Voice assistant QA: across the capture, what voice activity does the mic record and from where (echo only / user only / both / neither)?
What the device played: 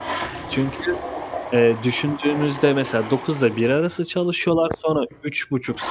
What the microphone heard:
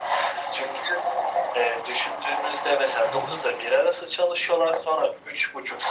both